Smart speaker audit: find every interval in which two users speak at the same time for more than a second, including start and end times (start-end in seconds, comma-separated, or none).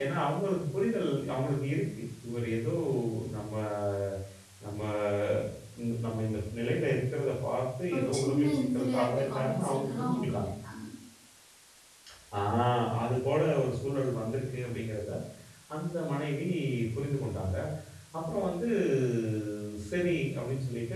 7.9-10.5